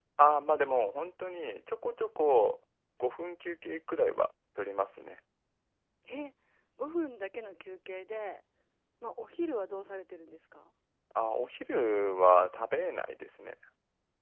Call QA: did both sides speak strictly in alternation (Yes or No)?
Yes